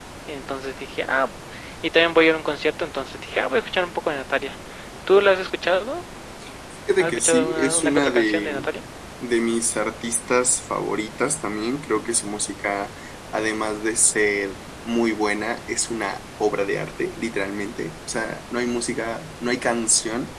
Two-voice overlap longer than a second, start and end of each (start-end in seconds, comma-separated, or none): 7.0-8.7